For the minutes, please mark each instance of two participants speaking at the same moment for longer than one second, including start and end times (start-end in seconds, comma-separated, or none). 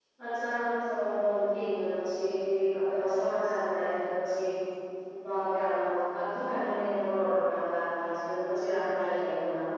none